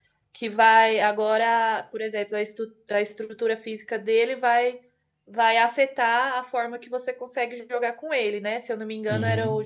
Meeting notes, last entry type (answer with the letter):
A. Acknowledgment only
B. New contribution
A